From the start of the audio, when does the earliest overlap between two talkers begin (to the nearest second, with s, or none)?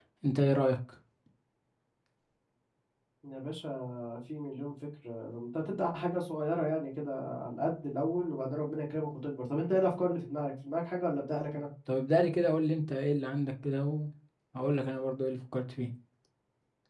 none